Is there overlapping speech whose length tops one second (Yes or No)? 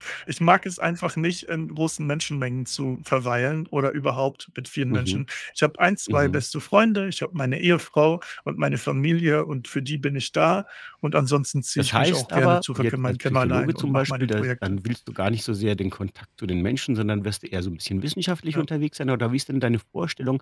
Yes